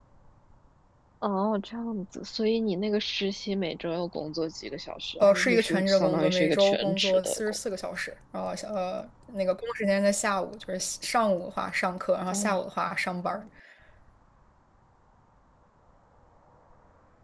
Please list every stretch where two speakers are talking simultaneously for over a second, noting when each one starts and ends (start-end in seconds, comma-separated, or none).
5.2-7.6